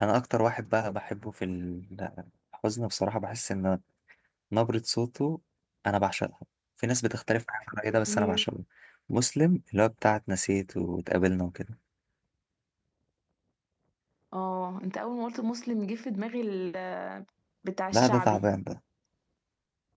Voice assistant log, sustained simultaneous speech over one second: none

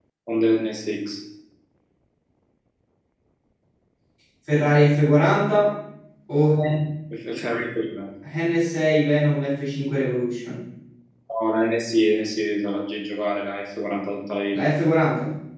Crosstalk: none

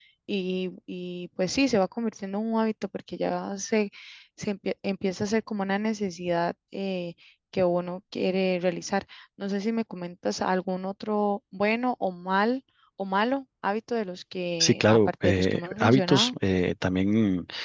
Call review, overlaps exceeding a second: present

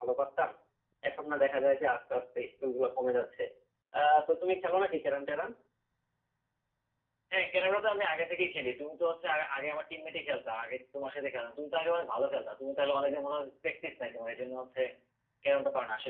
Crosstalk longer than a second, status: none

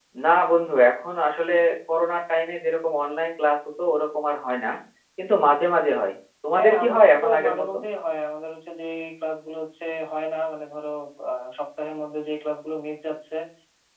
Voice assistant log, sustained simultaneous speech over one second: present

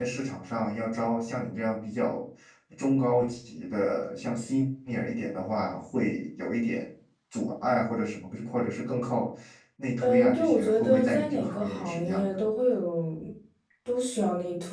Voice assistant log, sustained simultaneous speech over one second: present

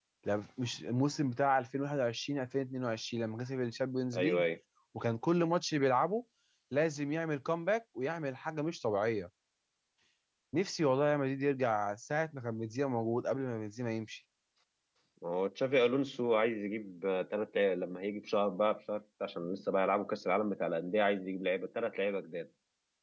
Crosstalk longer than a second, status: none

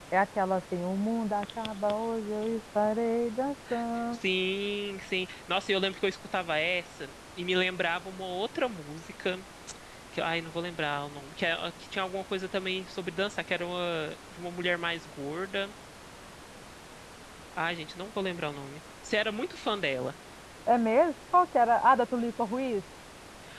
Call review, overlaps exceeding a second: none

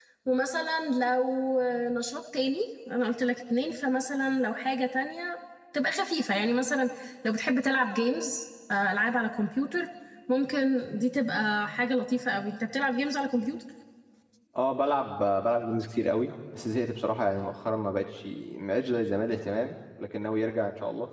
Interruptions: none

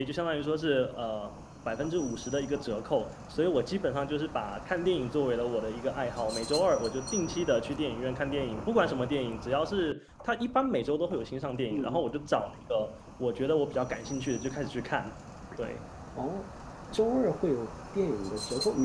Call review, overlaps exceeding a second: none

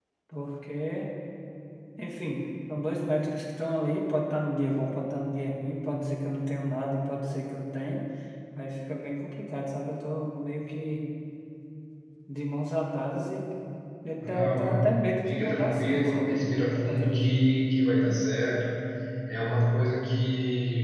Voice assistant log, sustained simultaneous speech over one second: present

